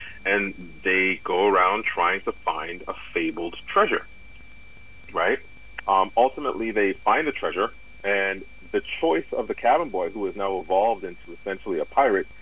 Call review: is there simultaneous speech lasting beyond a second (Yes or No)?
No